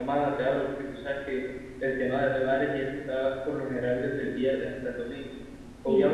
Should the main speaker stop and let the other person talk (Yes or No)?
No